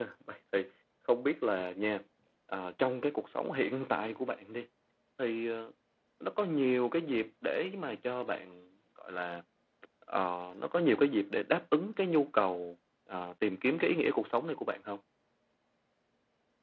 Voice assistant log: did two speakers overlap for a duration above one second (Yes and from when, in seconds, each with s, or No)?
No